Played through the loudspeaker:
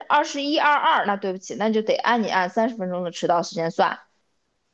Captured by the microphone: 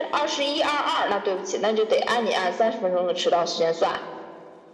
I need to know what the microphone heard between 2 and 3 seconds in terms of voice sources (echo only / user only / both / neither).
echo only